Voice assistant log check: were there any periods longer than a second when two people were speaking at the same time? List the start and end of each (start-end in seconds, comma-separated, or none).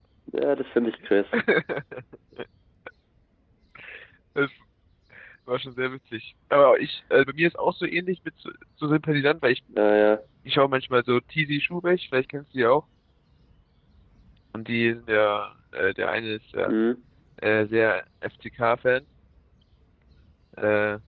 none